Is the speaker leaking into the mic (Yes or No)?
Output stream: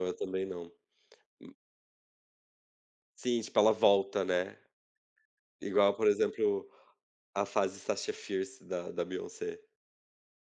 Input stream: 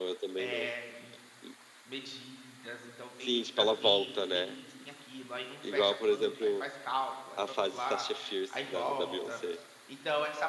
Yes